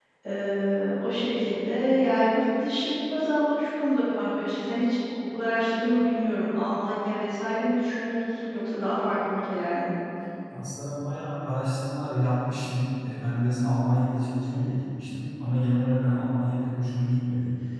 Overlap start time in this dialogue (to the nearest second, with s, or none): none